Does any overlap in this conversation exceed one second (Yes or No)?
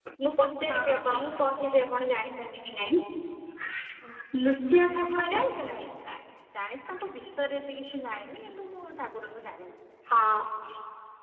Yes